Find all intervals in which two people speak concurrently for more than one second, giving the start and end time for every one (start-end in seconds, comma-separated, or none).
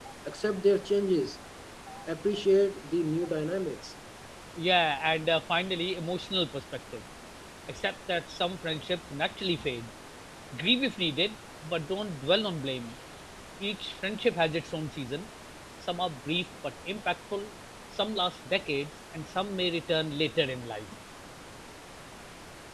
none